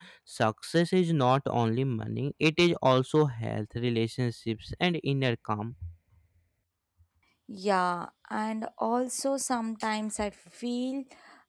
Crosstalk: none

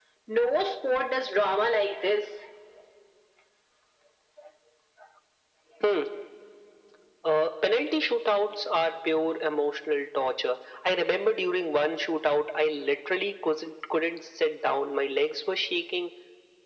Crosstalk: none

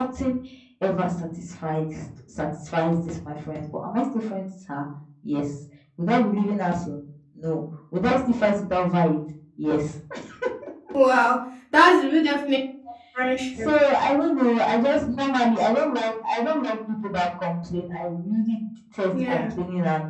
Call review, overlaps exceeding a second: none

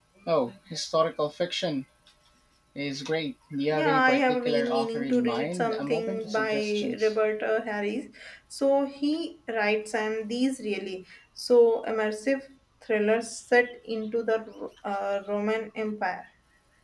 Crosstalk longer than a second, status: present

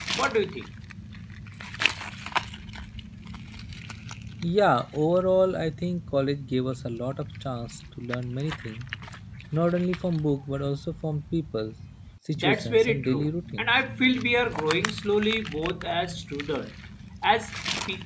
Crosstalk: present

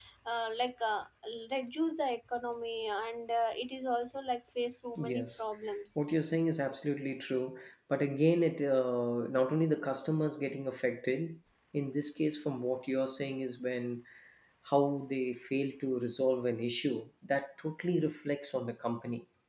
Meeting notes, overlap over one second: none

